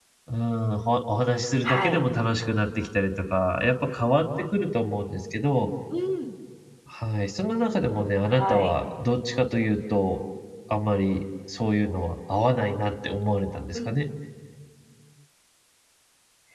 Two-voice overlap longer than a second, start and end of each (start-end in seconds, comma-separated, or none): none